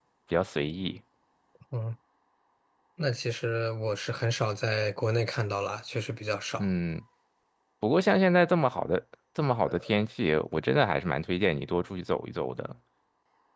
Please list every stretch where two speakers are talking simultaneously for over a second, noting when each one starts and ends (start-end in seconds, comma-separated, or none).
none